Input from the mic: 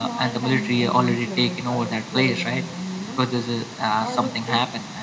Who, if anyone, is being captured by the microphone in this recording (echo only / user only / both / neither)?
both